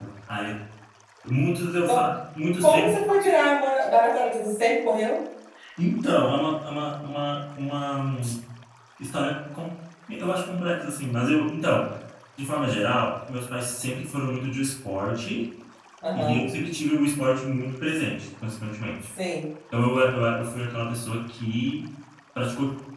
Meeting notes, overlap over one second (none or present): none